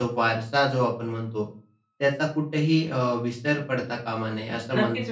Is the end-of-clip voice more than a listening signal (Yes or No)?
Yes